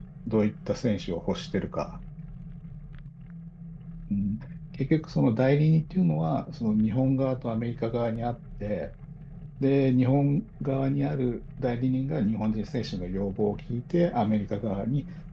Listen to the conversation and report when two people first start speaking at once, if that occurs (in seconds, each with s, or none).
none